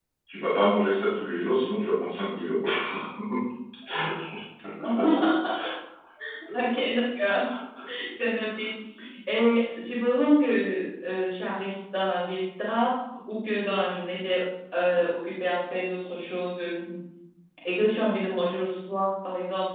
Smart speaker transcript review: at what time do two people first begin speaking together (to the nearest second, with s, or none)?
none